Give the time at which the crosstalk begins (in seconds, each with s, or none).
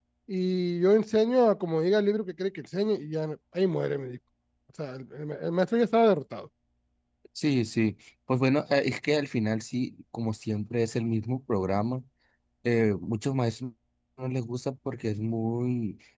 none